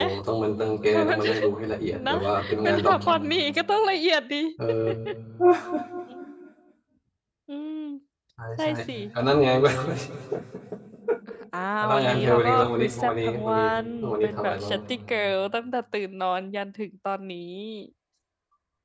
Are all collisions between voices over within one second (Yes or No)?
No